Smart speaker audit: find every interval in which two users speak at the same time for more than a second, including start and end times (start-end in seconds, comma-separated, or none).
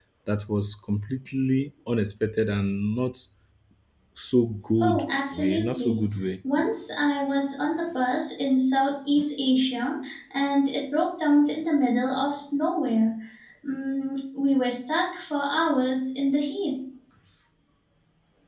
4.8-6.0